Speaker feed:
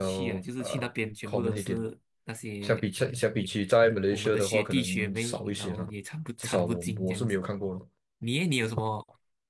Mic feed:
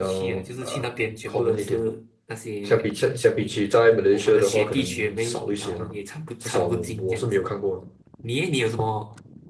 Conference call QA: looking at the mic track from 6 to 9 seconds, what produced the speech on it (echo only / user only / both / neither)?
echo only